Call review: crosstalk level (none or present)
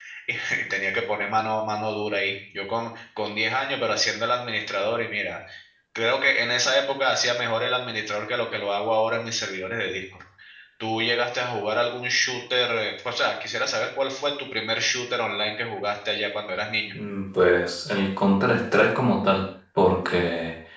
none